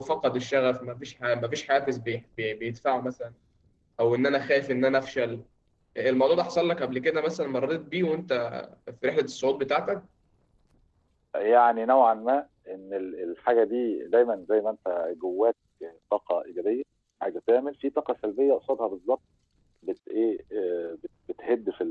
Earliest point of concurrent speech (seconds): none

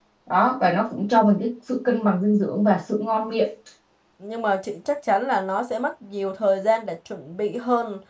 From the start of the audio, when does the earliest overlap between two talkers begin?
none

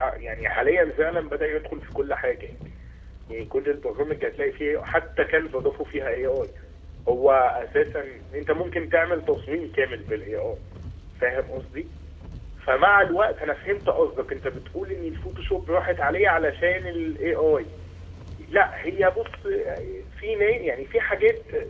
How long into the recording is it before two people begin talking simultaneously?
none

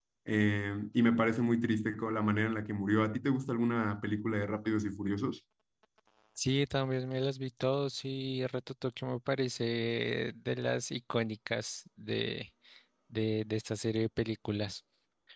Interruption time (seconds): none

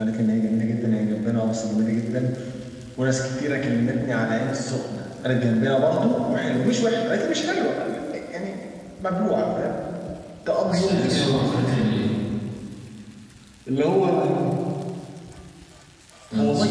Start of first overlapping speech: 10.7 s

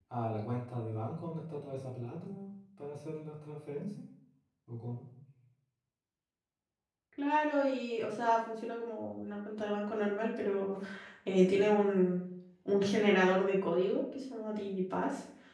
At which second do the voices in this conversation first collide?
none

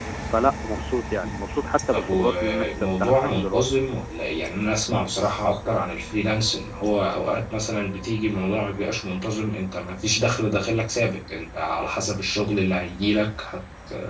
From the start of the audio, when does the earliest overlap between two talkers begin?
1.9 s

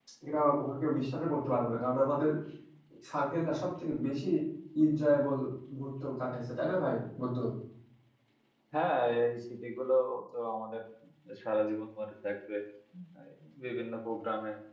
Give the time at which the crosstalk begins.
none

